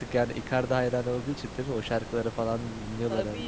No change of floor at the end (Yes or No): No